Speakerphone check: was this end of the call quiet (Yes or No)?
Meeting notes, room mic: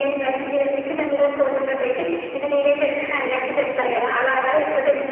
No